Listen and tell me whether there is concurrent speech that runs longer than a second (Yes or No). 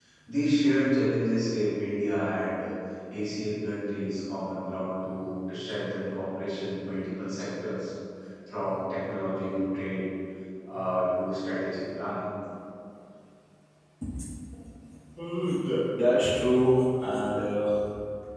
No